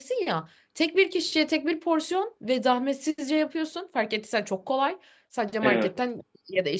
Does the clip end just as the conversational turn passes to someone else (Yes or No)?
No